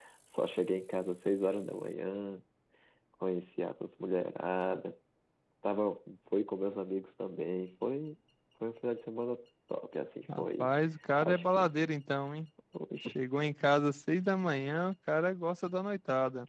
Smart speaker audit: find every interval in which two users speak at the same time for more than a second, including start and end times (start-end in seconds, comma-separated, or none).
none